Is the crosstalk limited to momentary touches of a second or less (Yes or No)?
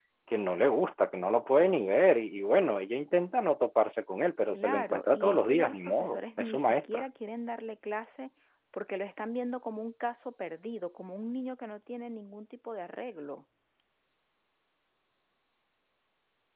No